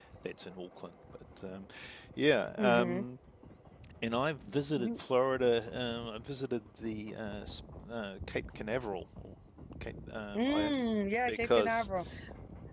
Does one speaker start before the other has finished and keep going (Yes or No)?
Yes